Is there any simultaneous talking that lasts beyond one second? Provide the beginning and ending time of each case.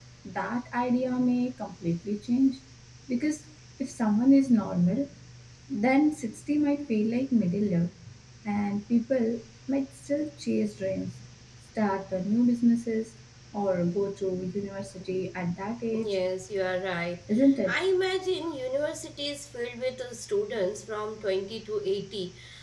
none

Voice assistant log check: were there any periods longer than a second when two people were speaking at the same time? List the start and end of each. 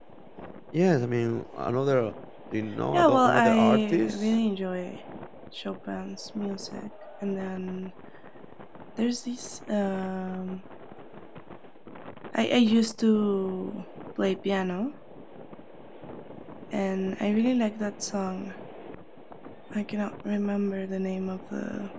2.9-4.3

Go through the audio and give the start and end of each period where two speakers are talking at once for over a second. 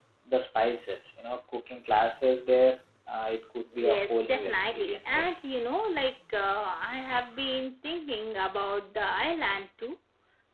3.8-5.4

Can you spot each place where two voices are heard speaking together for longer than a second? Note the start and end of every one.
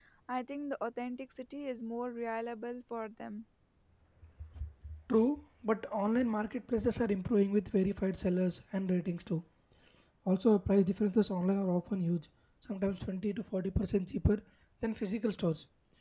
none

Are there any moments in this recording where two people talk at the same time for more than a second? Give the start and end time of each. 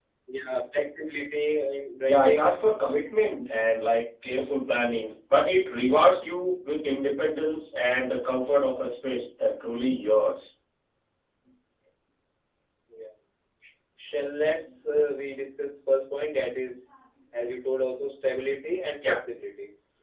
none

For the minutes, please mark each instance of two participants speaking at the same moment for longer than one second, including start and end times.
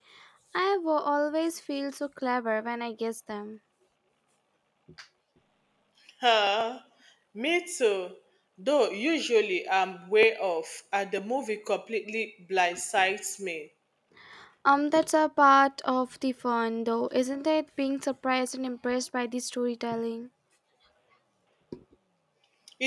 none

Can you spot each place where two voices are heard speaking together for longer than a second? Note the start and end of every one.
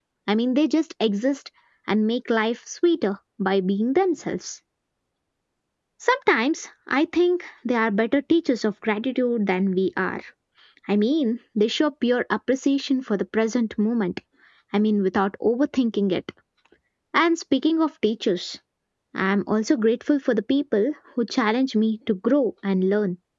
none

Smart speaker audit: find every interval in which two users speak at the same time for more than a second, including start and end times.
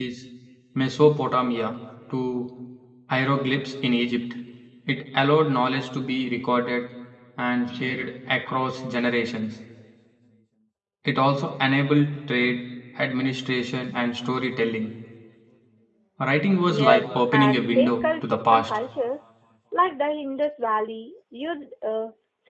16.7-18.8

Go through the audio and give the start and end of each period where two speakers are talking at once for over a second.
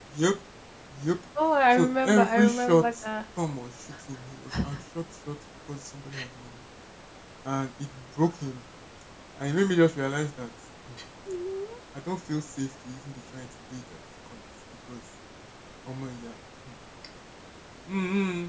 1.7-3.0

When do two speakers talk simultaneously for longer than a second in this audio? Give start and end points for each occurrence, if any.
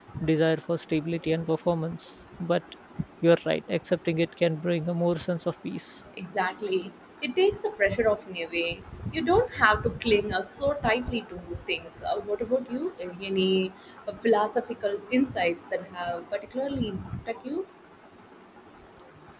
none

